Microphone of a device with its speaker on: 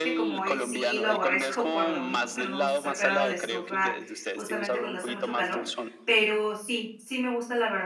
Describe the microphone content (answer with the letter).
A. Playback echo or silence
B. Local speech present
B